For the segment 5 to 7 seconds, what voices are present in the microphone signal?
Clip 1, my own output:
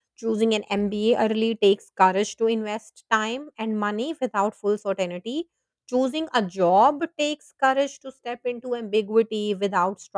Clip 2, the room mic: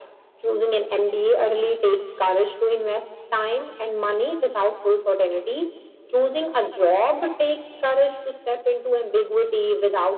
echo only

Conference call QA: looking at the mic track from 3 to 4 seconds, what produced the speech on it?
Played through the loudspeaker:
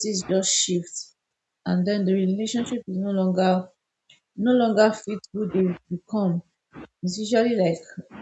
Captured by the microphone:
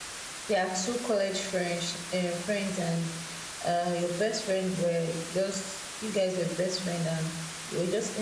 user only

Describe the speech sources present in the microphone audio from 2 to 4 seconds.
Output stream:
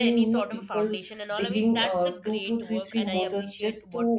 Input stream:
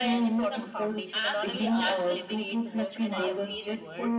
both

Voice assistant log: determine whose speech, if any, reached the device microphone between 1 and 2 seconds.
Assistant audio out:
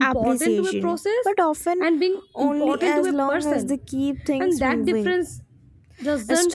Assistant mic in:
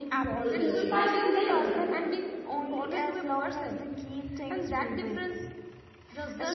both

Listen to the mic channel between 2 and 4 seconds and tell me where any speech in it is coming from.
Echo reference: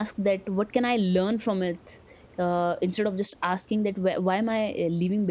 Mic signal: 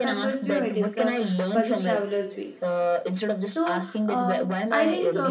both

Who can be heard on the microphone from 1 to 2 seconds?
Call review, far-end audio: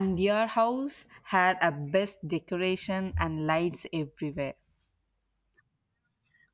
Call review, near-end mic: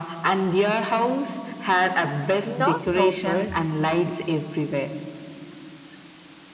echo only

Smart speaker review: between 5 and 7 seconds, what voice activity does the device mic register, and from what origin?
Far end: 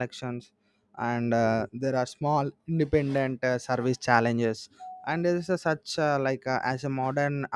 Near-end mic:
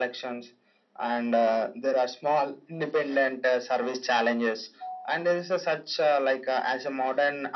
echo only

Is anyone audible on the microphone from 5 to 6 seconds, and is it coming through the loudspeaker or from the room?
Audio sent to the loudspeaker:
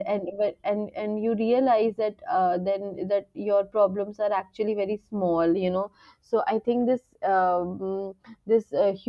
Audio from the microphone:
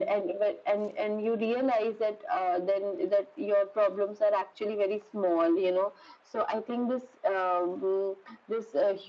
echo only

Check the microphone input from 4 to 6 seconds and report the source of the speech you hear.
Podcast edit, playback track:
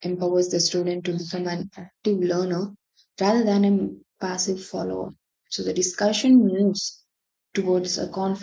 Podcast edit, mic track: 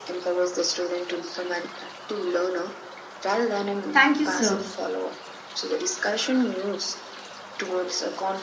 both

